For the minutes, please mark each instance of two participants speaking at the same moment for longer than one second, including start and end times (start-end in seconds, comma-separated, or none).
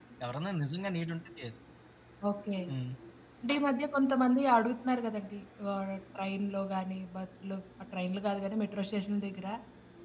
none